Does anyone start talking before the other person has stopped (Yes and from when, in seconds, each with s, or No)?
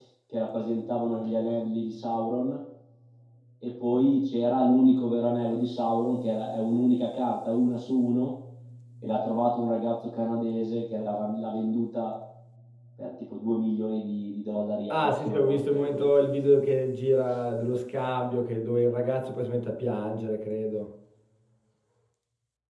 Yes, from 14.9 s